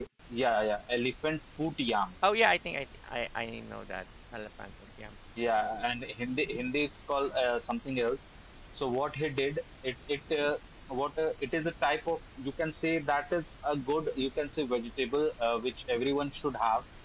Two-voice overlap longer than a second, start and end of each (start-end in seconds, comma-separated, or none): none